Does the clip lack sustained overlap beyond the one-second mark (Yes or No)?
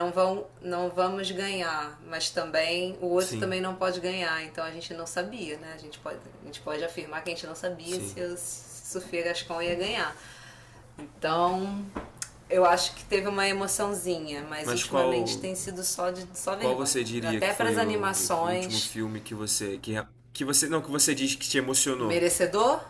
No